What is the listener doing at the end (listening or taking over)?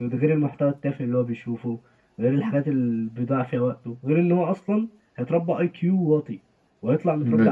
listening